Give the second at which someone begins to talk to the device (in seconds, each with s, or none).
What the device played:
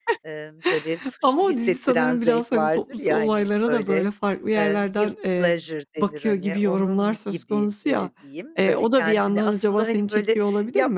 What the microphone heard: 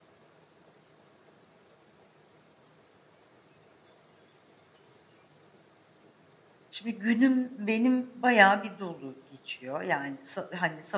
6.7 s